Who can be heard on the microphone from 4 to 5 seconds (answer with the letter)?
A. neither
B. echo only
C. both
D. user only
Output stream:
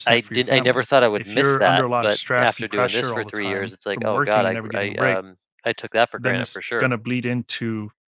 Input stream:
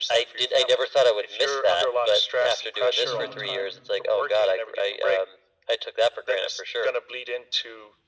B